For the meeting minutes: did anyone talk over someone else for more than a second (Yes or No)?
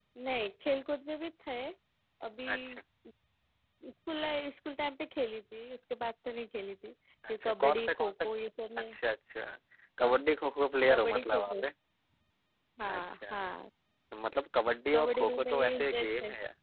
Yes